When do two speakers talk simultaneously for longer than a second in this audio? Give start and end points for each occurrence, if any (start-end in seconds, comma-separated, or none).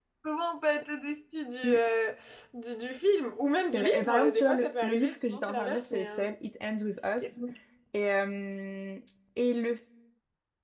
3.7-6.3